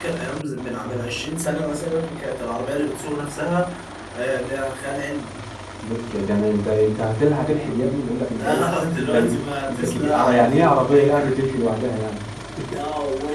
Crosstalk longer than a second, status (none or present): present